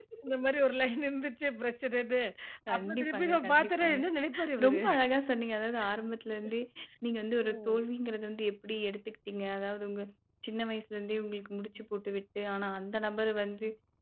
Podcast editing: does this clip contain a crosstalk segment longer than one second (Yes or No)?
Yes